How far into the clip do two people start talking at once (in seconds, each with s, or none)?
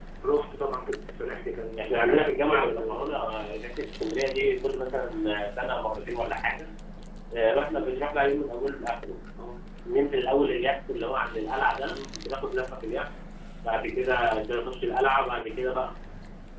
1.8 s